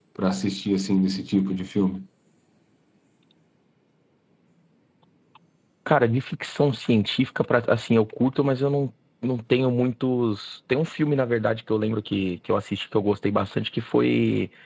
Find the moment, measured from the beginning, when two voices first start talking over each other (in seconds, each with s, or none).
none